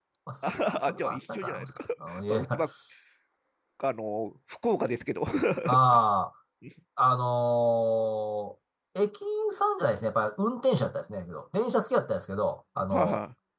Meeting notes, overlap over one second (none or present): present